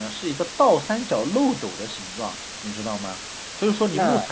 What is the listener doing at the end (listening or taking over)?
listening